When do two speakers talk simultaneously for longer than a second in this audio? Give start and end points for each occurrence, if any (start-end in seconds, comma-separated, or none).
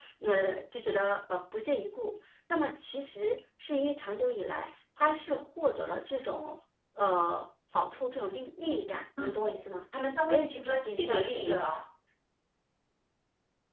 10.2-11.6